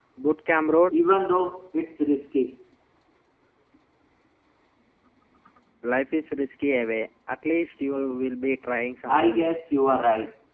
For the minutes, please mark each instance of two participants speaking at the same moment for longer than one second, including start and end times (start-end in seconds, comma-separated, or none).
none